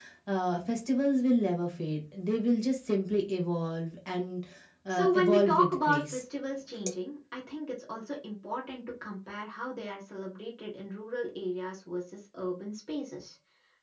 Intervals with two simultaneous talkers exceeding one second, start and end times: 4.9-6.2

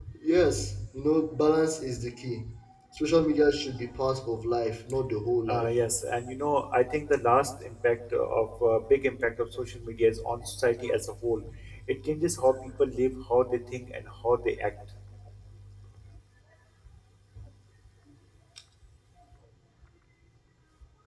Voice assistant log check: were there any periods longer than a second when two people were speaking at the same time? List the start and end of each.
none

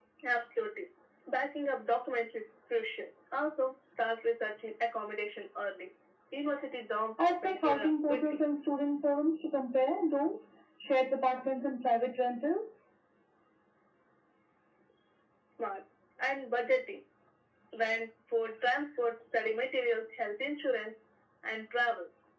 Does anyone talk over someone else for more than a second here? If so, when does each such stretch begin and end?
7.2-8.4

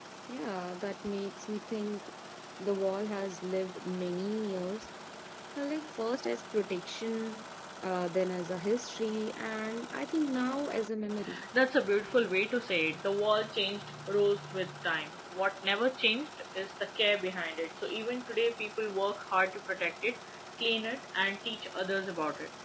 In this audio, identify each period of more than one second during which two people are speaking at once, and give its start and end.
none

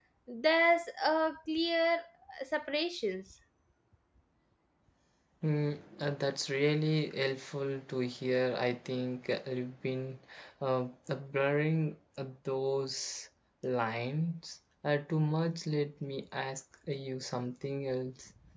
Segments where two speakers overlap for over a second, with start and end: none

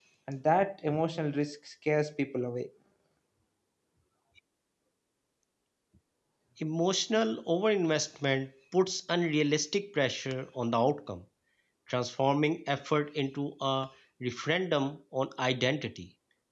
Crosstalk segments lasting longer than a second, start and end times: none

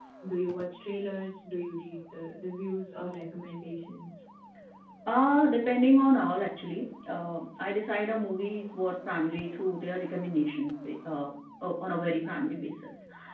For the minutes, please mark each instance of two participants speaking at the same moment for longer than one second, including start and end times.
none

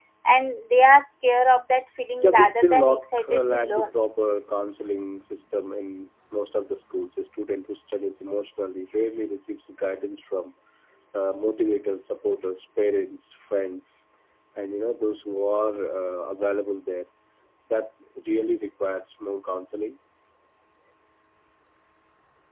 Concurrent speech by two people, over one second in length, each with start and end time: 2.2-3.9

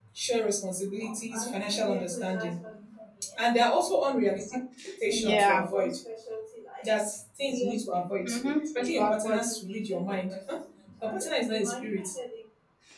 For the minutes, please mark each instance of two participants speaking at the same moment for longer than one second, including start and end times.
8.2-9.5

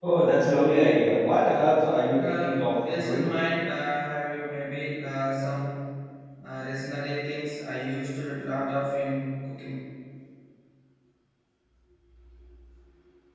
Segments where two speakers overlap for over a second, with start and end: 2.1-3.3

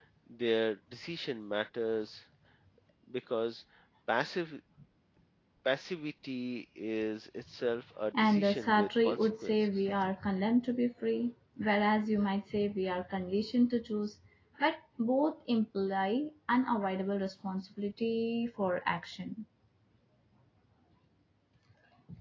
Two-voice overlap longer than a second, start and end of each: 8.2-9.8

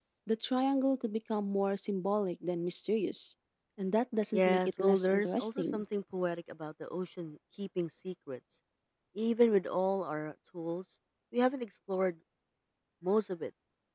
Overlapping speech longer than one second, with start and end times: 4.3-5.8

